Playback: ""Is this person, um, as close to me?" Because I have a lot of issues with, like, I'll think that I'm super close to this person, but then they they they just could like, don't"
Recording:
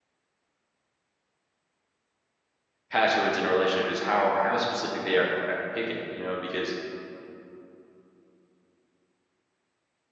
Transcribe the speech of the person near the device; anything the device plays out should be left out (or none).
passwords in a relationship is how how specific they are at picking, you know, because